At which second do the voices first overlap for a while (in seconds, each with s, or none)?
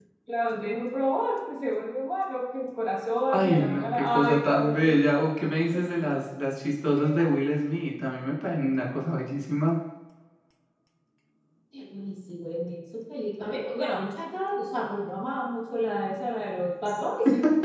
3.3 s